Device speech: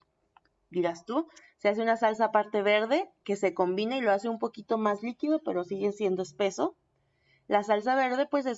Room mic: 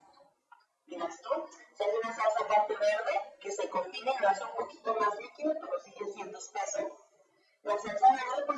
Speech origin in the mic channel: echo only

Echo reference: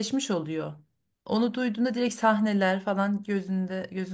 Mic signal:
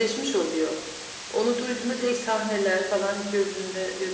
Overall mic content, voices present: echo only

